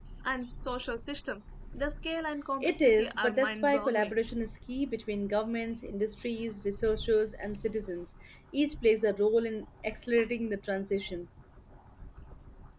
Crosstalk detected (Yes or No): Yes